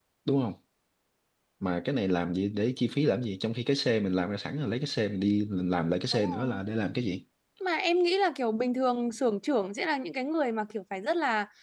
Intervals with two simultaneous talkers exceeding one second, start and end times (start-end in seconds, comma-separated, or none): none